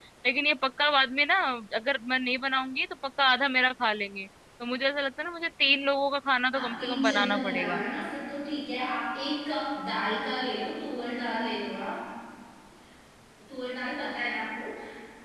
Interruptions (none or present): present